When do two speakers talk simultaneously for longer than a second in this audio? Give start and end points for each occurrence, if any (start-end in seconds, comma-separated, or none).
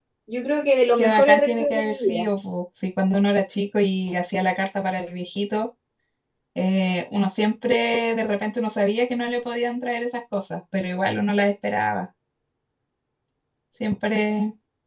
1.0-2.3